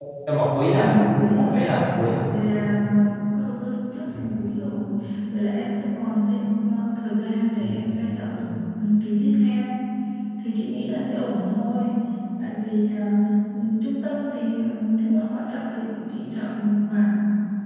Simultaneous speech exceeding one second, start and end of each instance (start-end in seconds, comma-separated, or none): none